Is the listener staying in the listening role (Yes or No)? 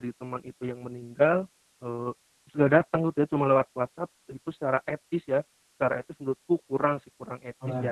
No